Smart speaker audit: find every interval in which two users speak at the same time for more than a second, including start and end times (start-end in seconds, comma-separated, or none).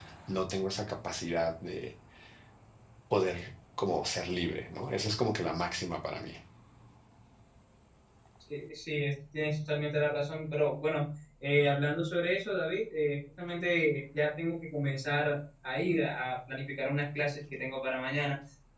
none